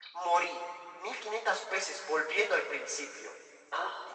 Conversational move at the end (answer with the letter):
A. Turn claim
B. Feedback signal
B